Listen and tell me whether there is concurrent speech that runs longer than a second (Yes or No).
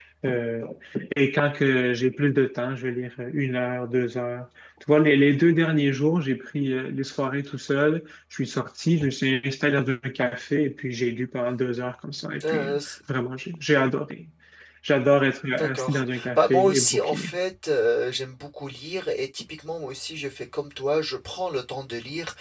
Yes